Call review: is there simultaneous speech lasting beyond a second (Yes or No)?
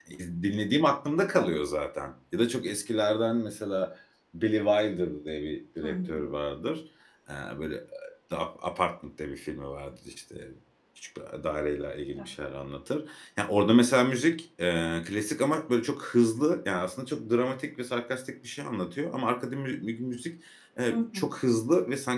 No